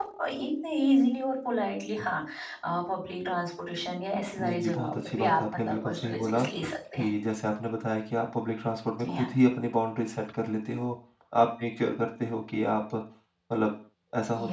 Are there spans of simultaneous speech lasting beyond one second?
Yes, from 4.4 s

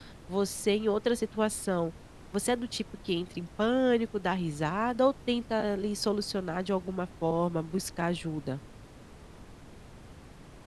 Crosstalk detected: No

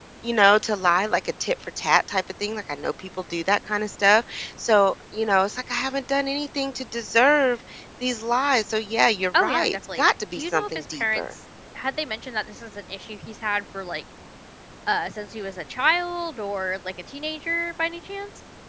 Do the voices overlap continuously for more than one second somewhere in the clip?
Yes, from 9.3 s

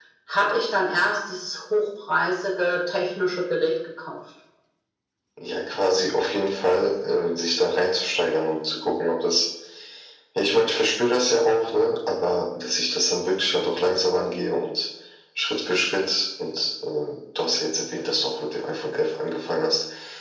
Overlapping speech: No

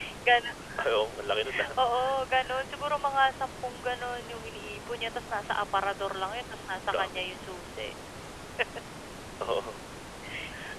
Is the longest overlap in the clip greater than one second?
No

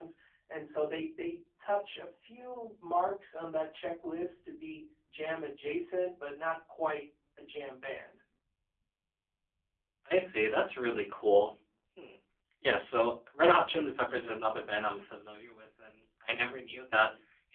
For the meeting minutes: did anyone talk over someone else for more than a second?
No

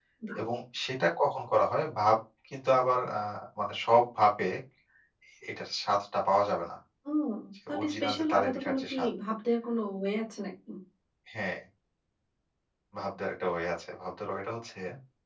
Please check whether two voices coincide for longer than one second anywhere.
Yes, from 7.7 s

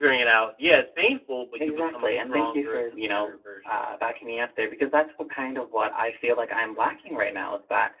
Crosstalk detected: Yes, from 1.6 s

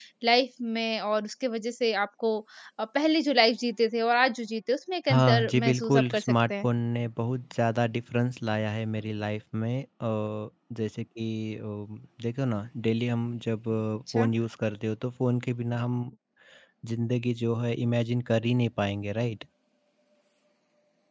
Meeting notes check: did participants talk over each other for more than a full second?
Yes, from 5.1 s

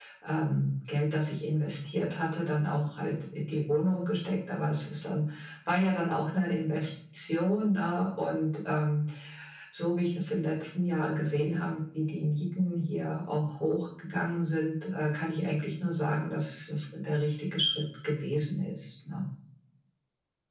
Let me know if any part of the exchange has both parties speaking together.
No

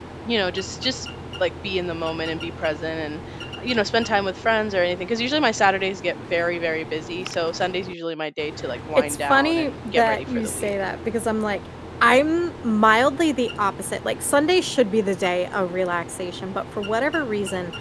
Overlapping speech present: Yes, from 8.9 s

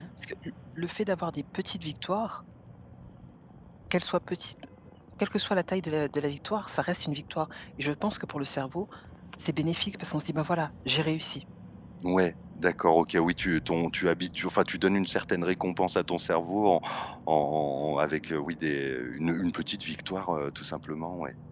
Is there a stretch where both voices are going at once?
No

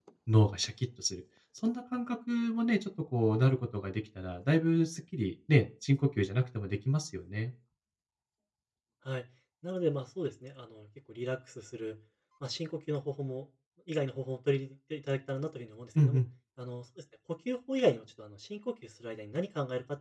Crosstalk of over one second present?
No

